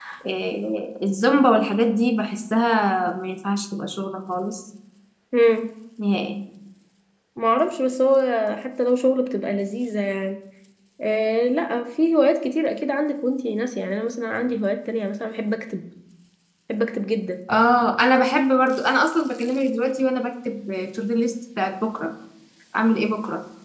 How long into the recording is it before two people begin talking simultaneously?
none

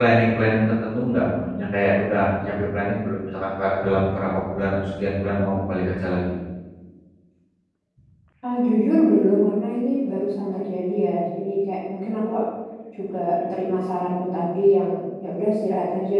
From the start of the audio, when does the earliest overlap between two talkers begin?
none

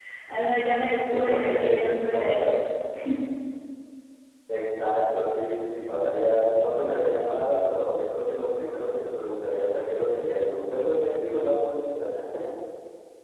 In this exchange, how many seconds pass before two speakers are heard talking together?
1.1 s

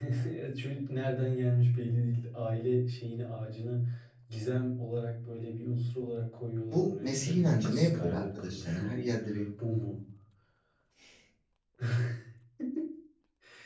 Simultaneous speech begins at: 6.7 s

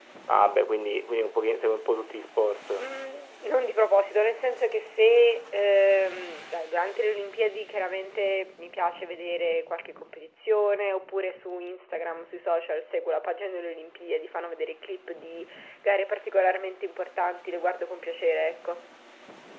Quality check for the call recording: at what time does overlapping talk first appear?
none

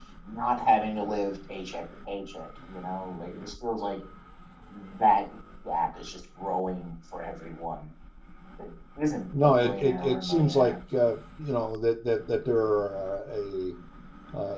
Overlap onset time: 9.4 s

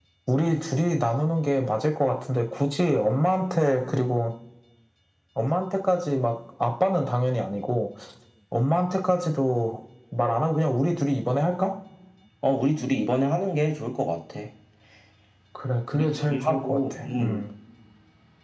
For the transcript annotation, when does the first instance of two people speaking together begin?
15.9 s

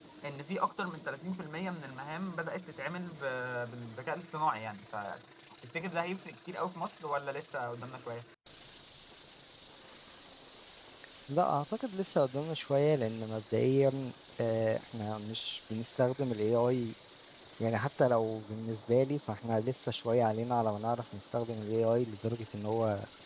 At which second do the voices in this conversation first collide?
none

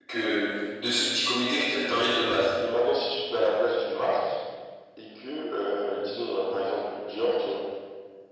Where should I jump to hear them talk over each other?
none

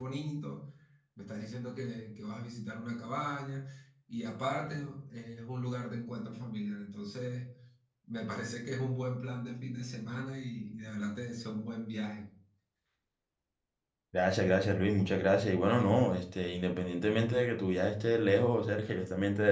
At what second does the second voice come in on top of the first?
none

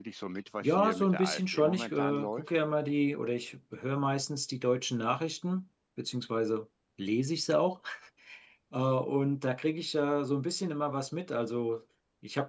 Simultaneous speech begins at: 0.6 s

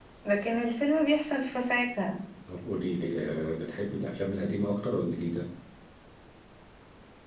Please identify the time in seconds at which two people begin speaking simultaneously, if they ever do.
none

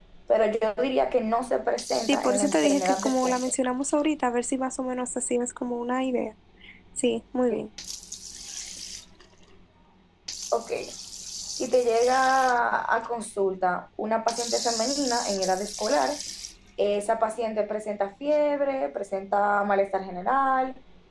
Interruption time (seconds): 2.1 s

